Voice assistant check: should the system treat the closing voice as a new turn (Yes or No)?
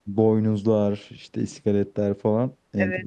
Yes